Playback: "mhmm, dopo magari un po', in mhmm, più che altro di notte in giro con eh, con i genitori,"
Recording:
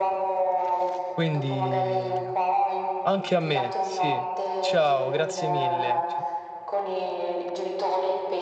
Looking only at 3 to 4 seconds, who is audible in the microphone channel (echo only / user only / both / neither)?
both